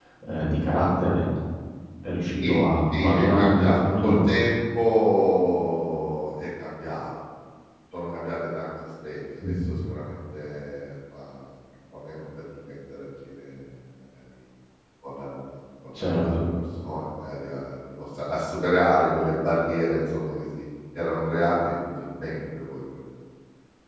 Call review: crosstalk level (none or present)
present